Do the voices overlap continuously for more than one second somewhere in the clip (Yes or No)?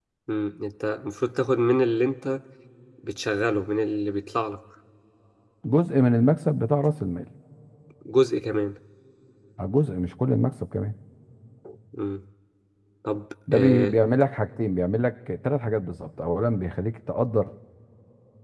No